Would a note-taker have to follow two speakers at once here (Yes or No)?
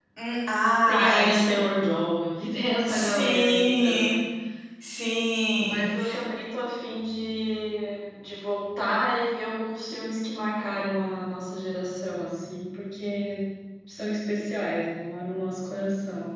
Yes